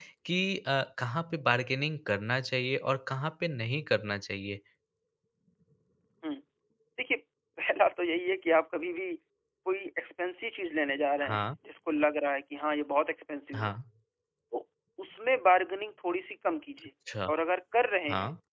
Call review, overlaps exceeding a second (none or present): none